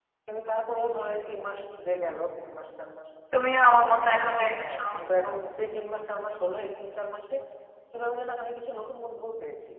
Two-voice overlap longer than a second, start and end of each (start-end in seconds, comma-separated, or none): none